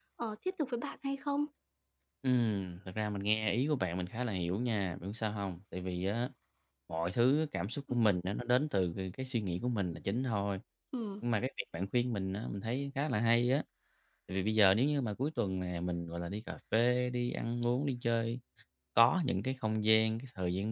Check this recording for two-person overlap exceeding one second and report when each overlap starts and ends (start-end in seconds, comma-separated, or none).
none